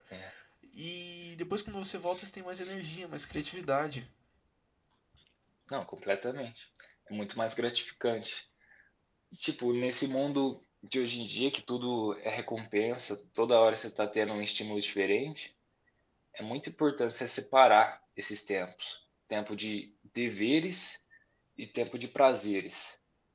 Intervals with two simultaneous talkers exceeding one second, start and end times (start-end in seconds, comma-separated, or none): none